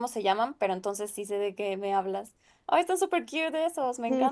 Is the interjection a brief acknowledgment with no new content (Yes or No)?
No